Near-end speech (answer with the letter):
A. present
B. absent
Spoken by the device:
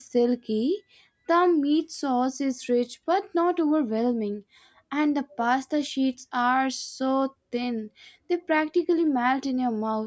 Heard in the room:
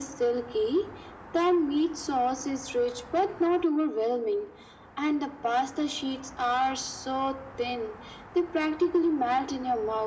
B